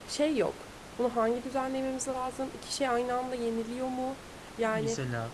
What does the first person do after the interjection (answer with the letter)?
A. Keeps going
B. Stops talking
A